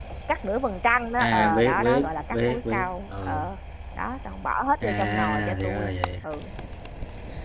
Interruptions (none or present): present